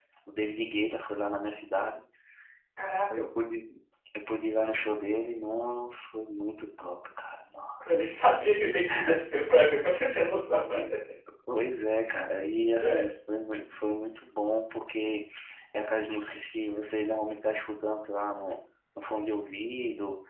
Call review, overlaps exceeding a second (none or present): none